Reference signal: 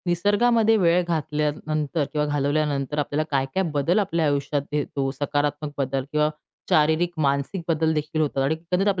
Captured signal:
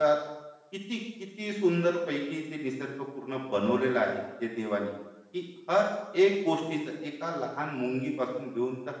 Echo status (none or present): none